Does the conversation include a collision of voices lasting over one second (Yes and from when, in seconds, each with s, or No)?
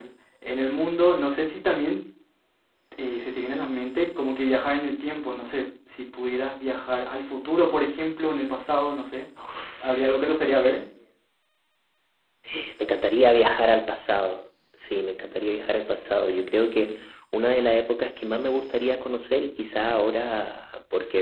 No